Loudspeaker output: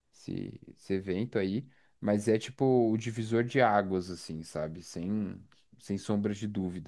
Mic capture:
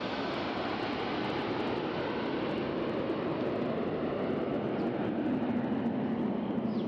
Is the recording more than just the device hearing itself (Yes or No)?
No